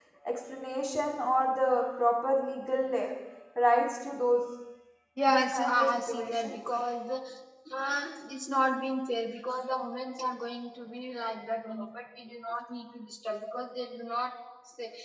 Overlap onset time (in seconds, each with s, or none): 5.3 s